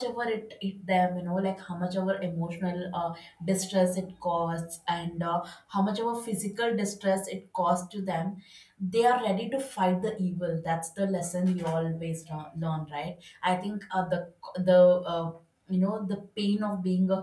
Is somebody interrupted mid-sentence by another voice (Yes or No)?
No